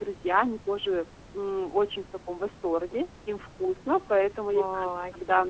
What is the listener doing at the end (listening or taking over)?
listening